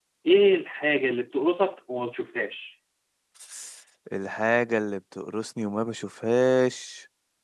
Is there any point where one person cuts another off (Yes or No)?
No